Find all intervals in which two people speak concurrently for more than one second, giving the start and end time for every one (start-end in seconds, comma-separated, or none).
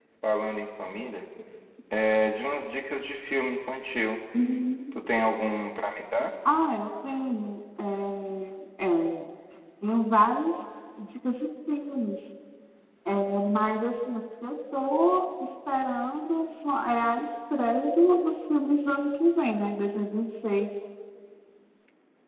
none